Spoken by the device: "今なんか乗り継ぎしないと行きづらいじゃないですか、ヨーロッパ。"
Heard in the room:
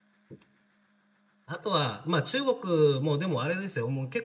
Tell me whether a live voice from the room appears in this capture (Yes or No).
Yes